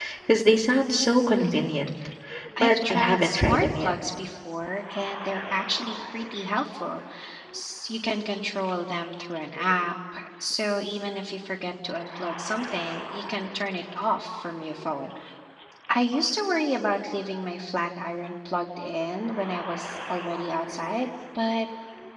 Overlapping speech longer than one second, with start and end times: 2.6-3.9

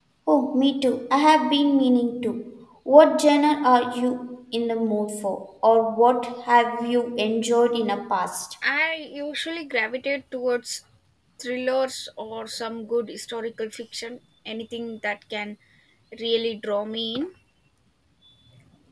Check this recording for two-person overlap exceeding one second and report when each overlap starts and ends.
none

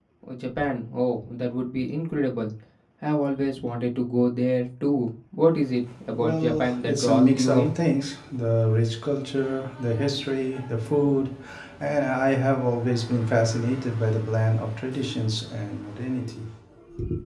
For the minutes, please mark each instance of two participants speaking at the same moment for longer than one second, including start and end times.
6.1-7.7

